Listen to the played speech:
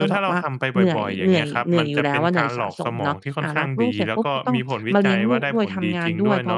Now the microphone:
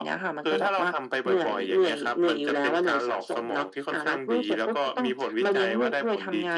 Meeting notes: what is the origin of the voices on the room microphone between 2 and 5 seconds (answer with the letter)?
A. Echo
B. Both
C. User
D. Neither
A